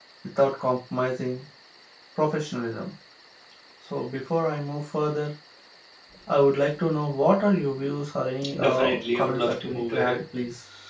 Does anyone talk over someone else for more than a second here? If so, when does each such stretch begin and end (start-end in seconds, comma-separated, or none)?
8.6-10.2